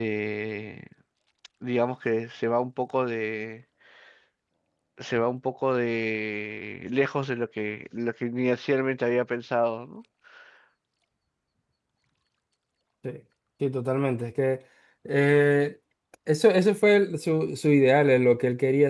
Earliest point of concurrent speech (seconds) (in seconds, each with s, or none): none